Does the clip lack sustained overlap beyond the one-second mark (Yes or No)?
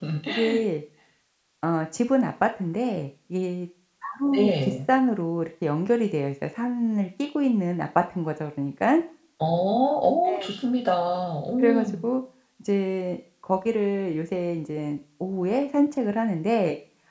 Yes